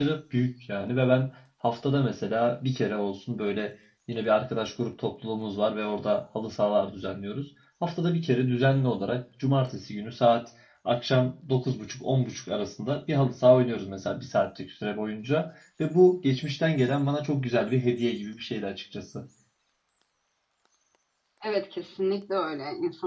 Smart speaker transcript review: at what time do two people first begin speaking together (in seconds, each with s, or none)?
none